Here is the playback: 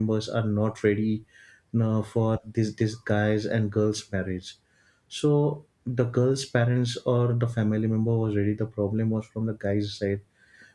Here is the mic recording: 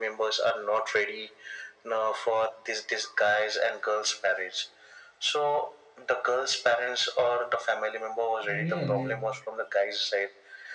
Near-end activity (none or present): present